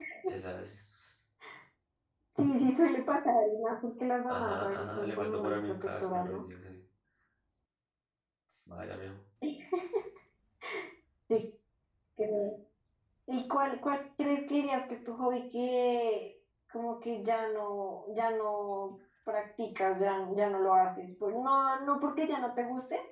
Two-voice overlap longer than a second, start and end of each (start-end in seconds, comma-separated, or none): 4.3-6.4